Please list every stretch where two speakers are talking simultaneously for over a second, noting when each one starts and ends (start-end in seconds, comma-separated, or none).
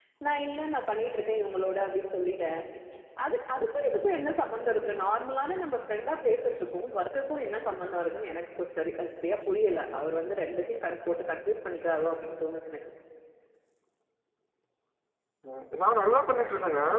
none